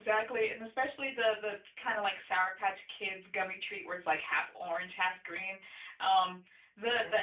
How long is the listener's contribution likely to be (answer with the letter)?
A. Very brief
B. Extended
A